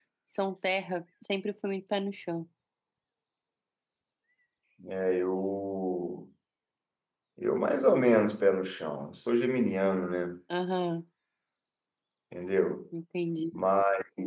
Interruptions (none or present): none